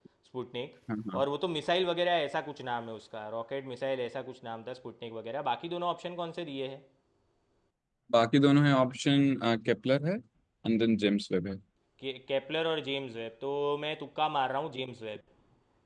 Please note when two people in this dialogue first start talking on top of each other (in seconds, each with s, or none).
none